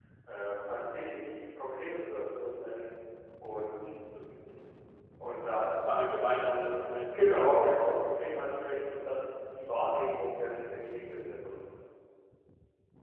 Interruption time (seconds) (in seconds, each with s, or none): none